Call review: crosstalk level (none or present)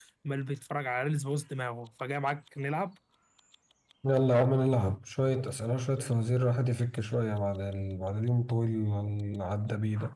none